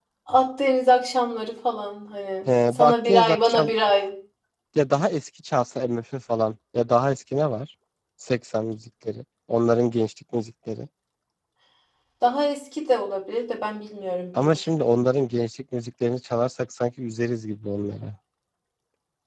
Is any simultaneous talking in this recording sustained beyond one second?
Yes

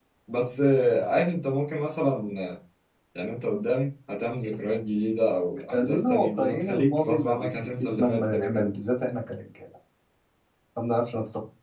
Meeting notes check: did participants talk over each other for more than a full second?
Yes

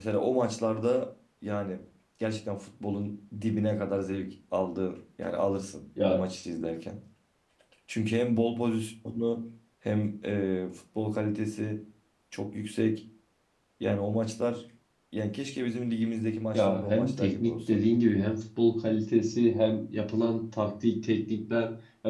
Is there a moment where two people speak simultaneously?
Yes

